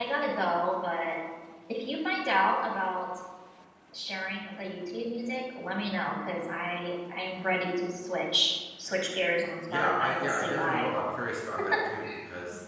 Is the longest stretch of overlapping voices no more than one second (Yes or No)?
No